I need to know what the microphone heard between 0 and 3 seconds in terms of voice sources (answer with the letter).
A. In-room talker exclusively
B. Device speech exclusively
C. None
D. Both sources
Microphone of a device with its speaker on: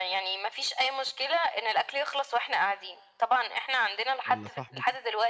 B